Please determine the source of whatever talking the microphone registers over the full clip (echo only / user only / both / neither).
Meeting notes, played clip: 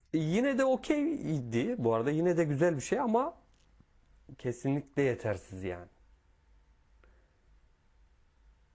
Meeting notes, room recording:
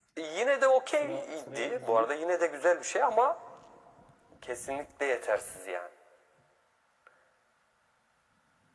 both